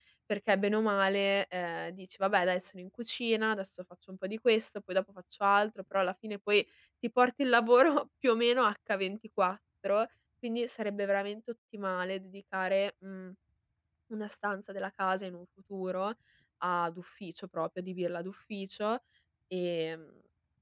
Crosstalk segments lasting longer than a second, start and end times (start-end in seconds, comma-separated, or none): none